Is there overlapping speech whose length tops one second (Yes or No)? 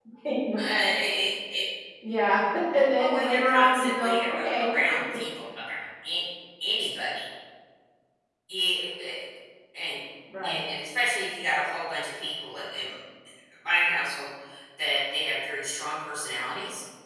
Yes